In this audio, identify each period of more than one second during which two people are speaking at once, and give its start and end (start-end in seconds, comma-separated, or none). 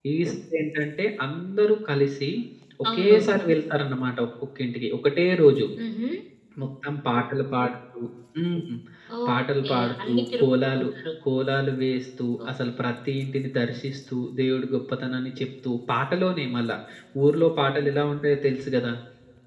9.3-10.8